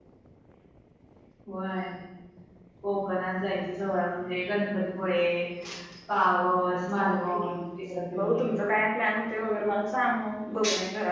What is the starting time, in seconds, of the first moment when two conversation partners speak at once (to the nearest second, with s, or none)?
6 s